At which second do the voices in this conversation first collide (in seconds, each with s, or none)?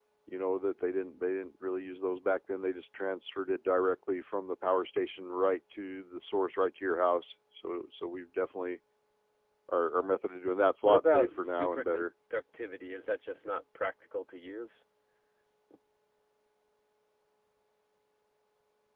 10.8 s